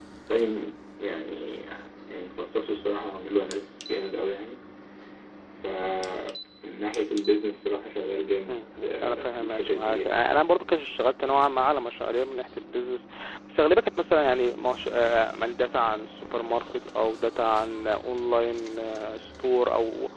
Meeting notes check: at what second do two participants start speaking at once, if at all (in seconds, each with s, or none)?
8.5 s